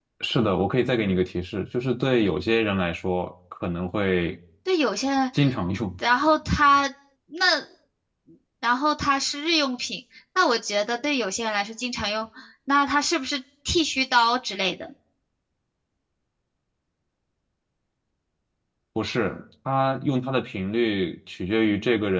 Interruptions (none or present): none